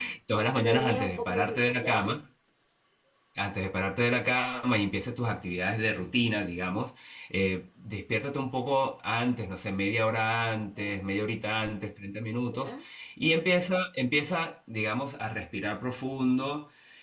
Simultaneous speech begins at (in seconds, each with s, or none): 0.7 s